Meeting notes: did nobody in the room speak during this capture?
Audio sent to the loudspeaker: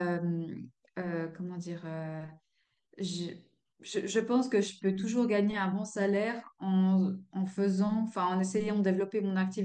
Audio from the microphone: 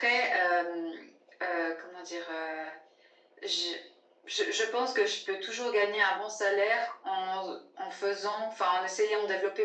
Yes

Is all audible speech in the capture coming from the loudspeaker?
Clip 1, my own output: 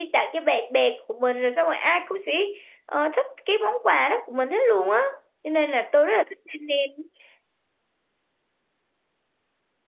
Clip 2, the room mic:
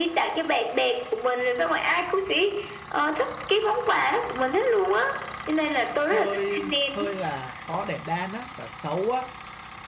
No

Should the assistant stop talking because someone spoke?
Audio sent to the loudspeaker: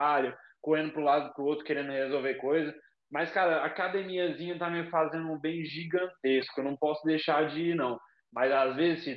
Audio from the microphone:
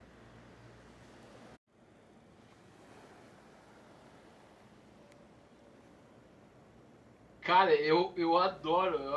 Yes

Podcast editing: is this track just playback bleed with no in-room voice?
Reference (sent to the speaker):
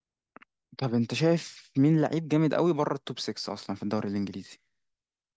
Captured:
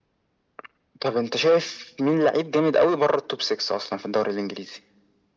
Yes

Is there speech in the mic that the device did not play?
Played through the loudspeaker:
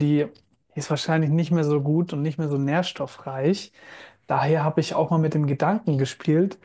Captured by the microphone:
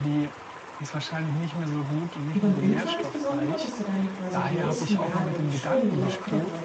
Yes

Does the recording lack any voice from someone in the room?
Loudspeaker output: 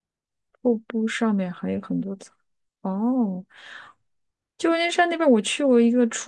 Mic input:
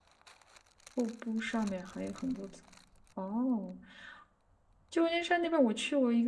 Yes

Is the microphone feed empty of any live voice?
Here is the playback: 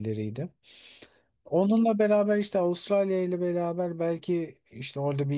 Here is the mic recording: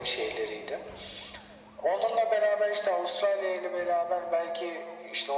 Yes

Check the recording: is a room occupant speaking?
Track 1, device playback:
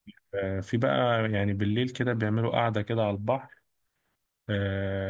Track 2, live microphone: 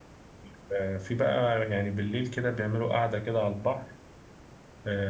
No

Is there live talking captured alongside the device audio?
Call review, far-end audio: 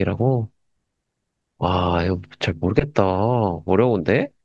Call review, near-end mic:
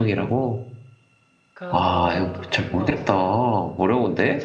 Yes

